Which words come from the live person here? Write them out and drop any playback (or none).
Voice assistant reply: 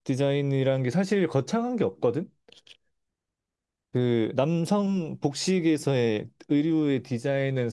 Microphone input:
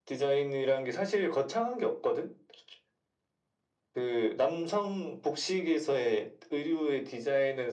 none